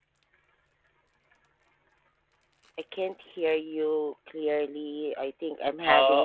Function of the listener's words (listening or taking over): taking over